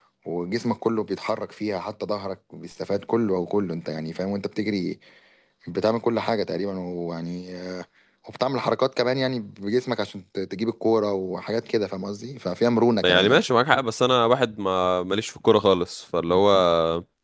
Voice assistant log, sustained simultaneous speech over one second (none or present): none